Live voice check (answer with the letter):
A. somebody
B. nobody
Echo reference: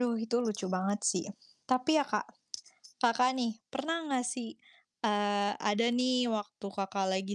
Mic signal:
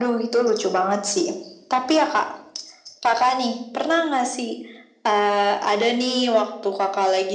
B